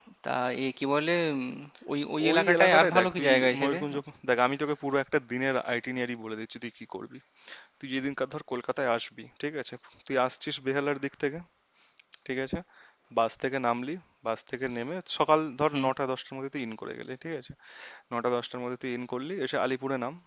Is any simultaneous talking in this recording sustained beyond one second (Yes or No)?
Yes